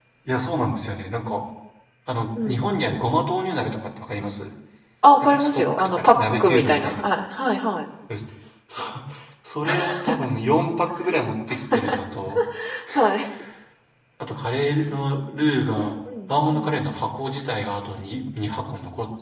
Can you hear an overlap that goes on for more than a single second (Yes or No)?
Yes